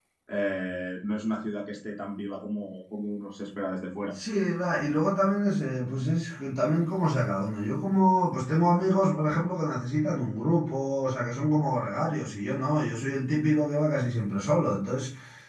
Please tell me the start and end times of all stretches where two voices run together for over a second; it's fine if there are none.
none

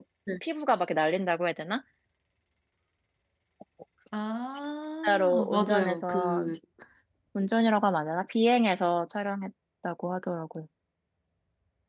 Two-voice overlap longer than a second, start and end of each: 5.0-6.5

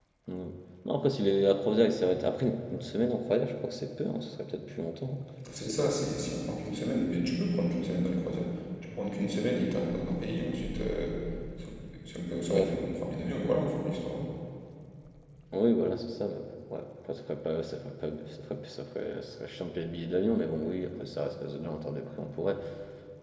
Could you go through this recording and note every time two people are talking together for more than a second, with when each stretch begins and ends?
none

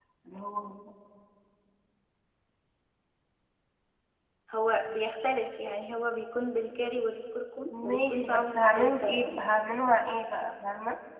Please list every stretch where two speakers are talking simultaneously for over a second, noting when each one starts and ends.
7.8-9.4

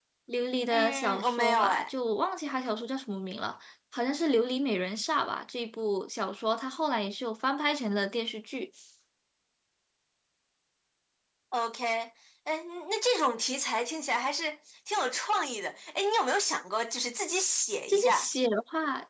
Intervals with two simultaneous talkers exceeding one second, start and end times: 0.7-1.9

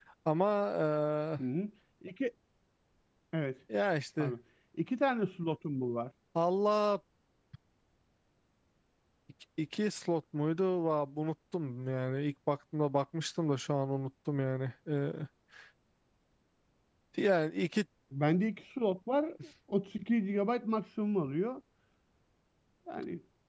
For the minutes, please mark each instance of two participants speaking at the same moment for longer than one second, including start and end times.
none

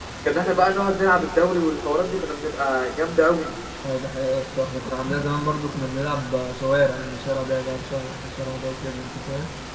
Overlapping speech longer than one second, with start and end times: none

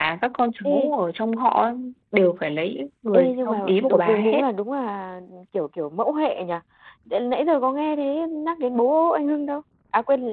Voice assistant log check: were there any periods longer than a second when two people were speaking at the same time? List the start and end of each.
3.1-4.4

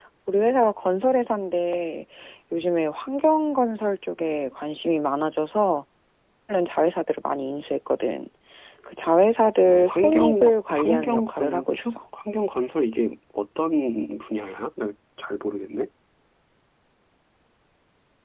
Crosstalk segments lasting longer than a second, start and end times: 9.6-12.0

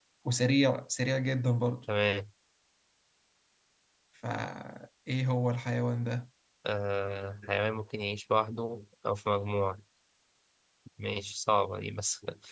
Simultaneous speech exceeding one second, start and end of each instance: none

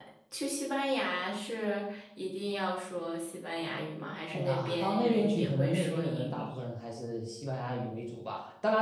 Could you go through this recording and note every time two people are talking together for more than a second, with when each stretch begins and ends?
4.3-6.5

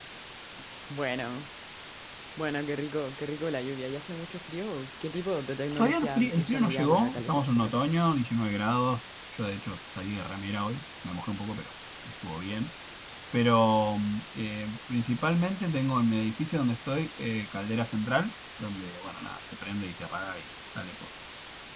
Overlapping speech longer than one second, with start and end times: 5.8-7.9

